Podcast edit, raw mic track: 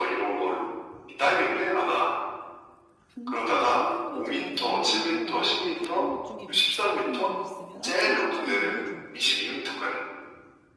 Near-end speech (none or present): present